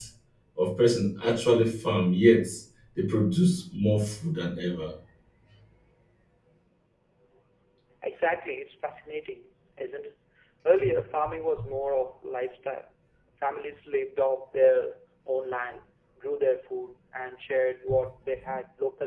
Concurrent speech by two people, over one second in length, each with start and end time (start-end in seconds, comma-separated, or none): none